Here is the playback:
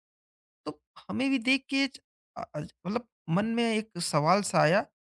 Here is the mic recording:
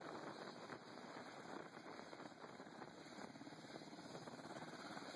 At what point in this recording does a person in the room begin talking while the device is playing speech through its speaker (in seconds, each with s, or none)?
none